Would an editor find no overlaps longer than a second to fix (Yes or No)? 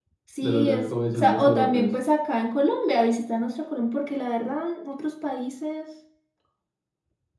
No